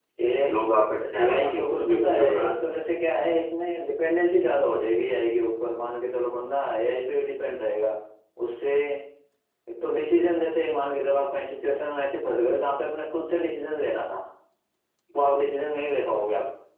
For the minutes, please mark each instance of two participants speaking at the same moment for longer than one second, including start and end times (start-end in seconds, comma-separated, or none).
1.2-2.6